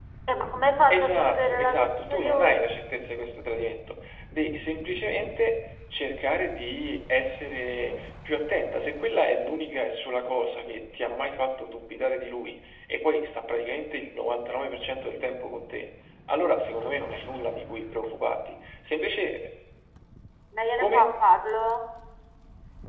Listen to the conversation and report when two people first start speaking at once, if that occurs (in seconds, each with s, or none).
0.9 s